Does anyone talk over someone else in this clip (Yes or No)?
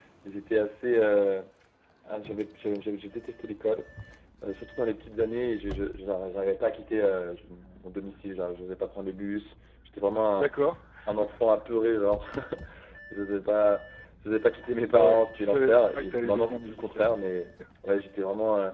Yes